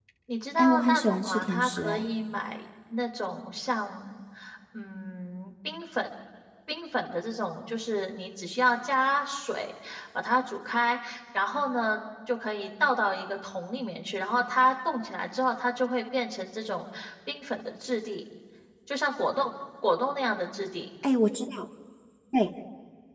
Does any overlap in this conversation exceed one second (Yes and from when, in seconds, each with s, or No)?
Yes, from 0.6 s